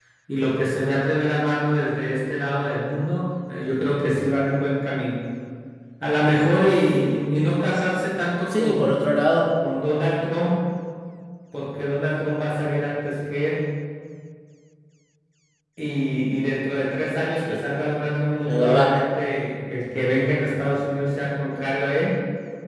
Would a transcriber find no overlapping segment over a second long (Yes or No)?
Yes